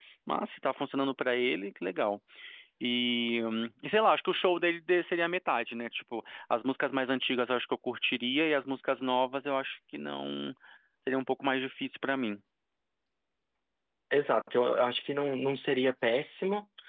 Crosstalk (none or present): none